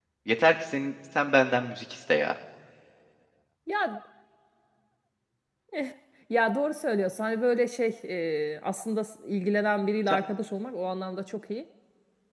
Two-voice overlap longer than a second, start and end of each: none

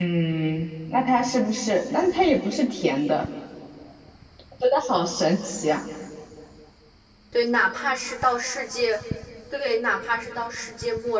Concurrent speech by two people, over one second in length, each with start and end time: none

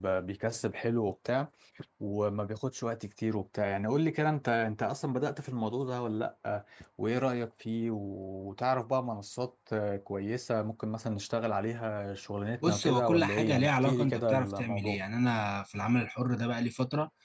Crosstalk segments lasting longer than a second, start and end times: 12.6-15.0

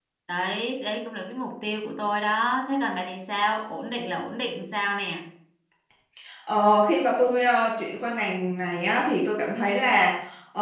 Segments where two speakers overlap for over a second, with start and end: none

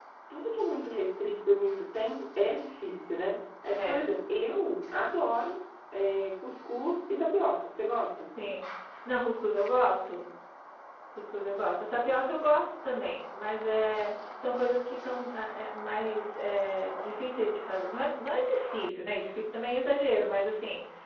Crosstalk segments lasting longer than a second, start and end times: none

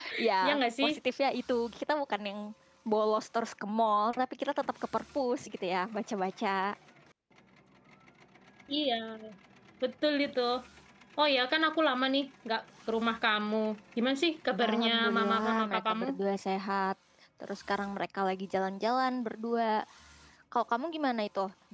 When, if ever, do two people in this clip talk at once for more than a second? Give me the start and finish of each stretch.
14.6-16.1

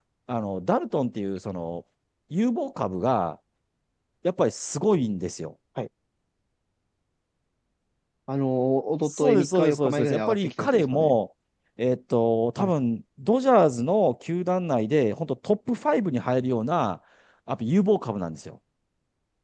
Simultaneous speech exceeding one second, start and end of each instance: 9.1-11.1

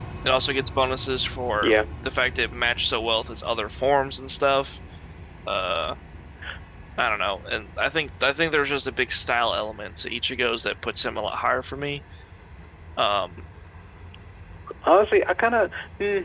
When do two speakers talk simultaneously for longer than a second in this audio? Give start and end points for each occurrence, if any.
none

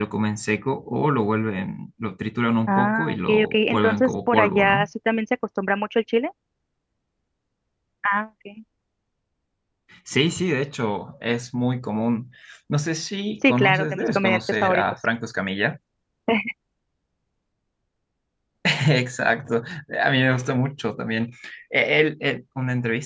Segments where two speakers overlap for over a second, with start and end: 2.7-4.9, 13.5-14.8

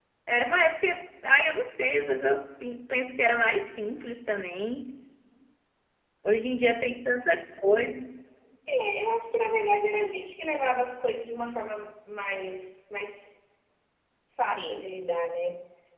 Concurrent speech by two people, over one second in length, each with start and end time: none

